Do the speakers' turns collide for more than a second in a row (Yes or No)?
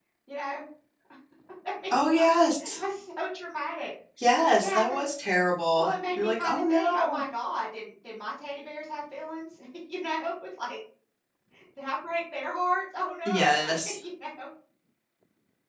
Yes